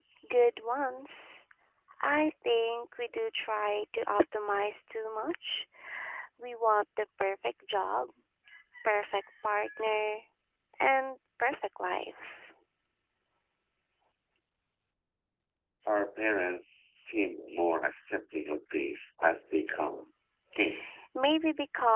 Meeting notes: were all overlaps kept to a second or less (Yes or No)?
Yes